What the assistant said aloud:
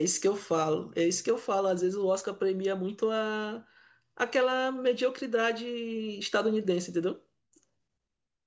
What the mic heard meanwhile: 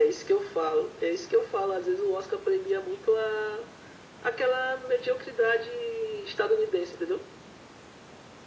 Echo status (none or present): present